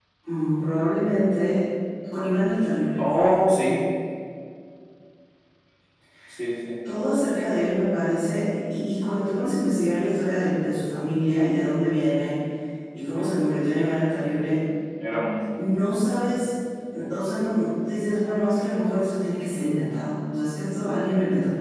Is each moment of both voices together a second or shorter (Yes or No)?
Yes